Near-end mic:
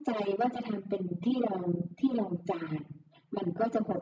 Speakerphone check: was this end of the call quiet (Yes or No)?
Yes